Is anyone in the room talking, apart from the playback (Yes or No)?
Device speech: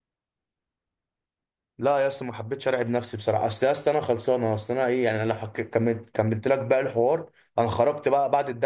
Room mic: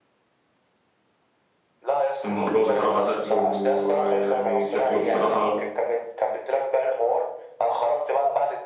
Yes